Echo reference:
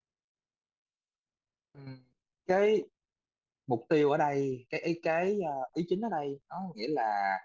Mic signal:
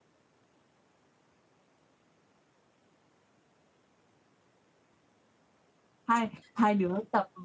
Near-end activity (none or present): present